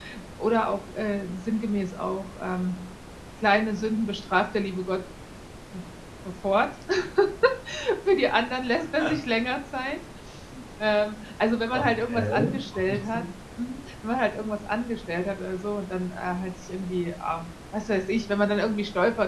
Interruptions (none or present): present